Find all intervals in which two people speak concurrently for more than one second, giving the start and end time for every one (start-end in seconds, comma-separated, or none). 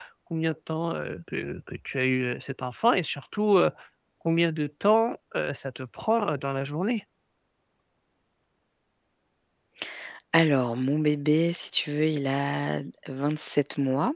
none